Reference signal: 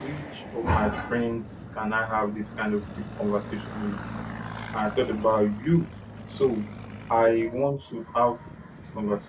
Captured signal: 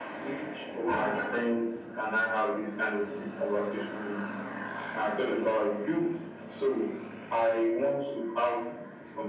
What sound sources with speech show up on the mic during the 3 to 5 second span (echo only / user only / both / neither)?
echo only